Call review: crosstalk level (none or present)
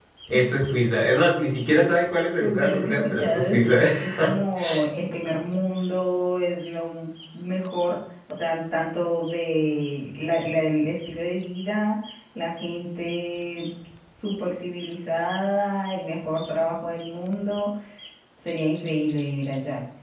present